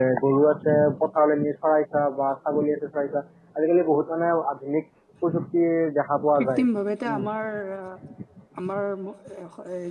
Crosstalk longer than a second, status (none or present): none